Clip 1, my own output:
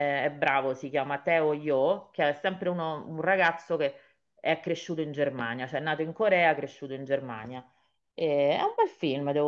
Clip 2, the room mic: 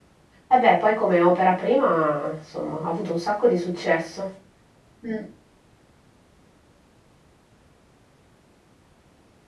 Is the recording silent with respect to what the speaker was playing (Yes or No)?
Yes